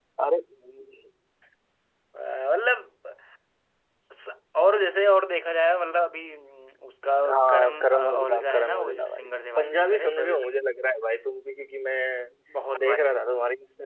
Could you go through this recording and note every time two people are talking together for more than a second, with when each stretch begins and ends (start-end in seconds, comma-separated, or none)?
7.3-10.4